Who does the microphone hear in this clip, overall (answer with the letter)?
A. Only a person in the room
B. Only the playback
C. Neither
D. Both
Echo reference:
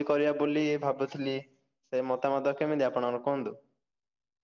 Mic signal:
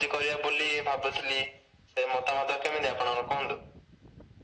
B